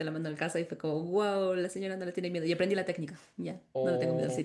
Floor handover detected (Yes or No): Yes